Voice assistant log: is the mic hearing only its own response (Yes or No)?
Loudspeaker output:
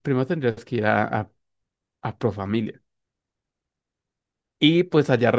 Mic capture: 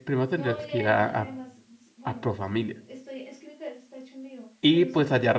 No